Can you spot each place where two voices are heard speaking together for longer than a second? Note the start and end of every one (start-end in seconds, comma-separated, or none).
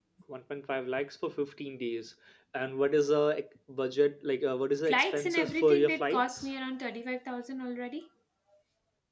4.8-6.5